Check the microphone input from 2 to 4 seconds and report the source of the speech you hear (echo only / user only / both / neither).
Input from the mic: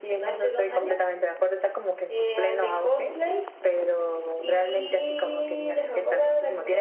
echo only